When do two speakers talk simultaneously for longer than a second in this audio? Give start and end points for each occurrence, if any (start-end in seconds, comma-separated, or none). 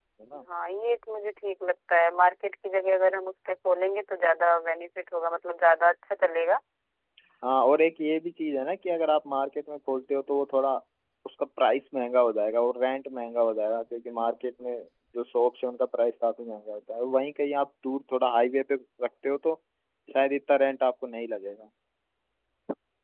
none